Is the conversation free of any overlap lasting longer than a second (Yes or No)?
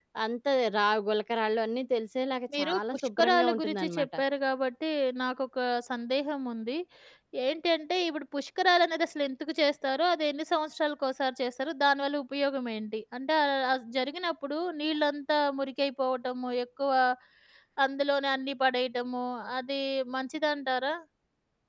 No